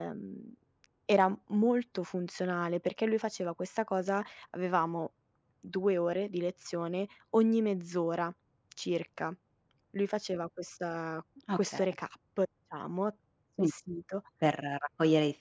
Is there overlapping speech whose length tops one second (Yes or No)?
No